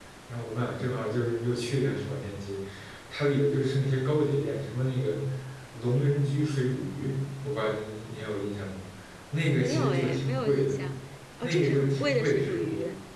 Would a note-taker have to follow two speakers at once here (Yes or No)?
Yes